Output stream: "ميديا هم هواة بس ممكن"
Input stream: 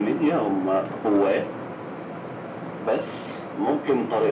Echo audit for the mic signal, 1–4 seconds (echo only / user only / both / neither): echo only